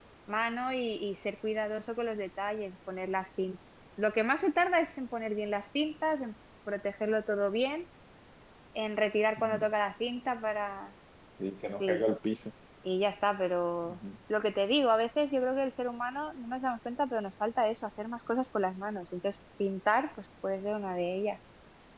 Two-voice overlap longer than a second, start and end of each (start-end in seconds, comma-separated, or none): none